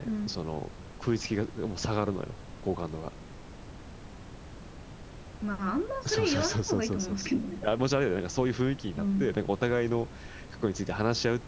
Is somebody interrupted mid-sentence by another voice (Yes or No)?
Yes